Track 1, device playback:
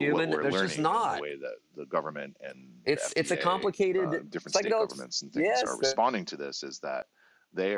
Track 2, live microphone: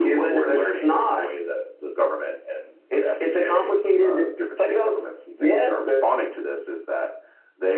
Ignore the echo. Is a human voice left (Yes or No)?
No